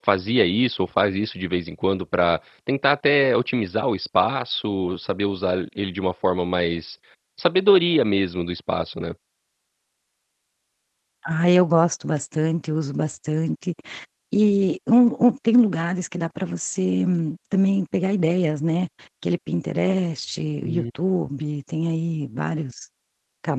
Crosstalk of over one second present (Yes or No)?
No